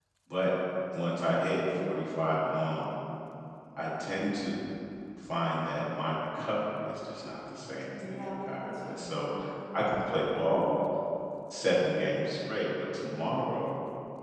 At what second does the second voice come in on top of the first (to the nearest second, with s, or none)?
8 s